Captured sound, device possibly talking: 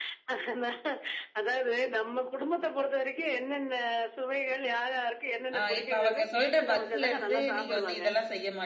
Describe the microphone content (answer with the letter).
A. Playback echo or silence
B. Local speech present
B